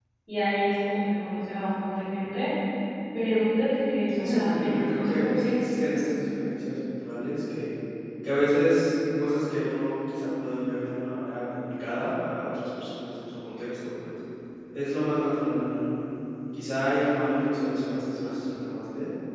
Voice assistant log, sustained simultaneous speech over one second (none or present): present